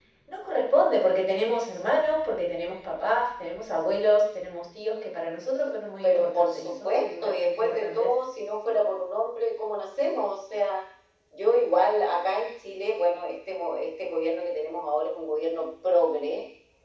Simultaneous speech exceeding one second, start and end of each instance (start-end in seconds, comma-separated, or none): 6.0-8.1